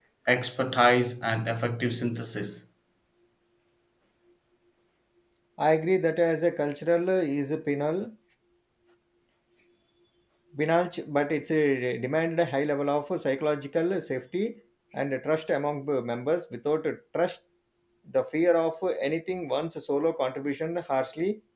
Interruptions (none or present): none